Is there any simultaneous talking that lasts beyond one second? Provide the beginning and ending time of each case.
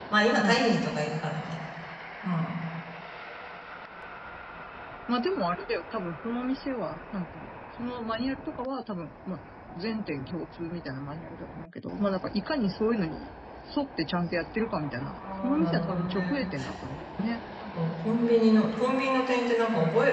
15.2-16.4

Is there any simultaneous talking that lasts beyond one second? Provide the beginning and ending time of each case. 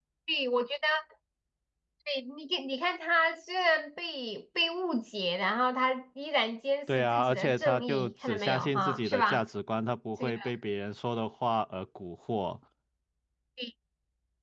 7.0-9.4

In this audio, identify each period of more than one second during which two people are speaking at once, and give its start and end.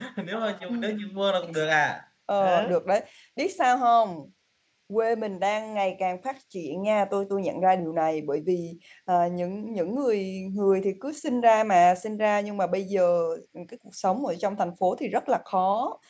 none

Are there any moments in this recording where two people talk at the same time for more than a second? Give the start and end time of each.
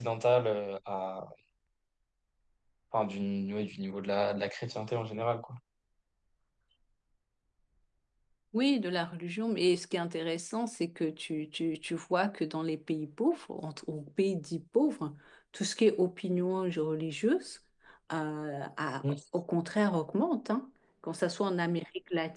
none

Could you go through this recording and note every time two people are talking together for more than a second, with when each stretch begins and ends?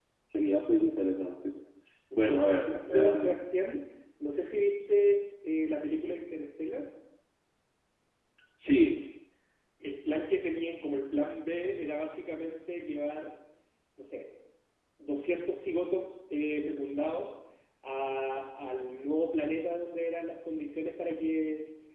2.2-3.4

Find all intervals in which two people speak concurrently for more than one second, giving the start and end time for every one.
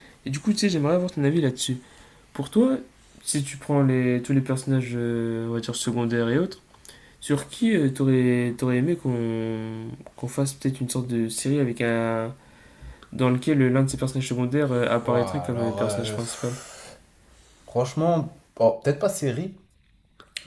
15.0-16.5

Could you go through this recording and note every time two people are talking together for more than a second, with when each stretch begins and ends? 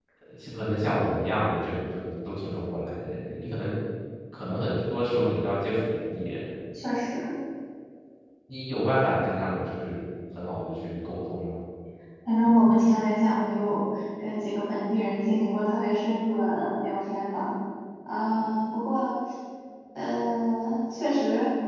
none

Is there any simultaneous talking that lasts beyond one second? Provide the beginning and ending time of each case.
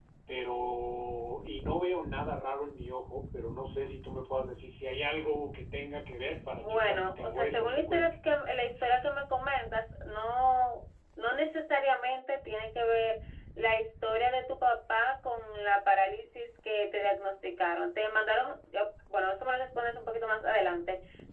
6.6-8.1

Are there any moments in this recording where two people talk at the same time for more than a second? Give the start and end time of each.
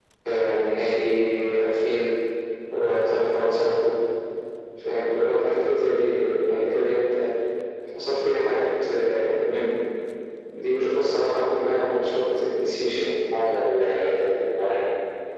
none

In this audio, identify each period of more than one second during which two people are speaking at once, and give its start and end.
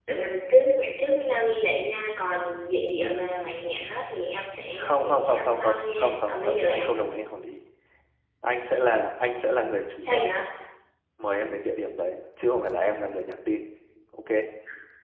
4.8-7.0

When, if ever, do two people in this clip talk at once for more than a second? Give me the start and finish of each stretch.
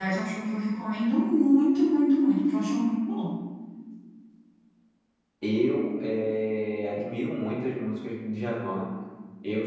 none

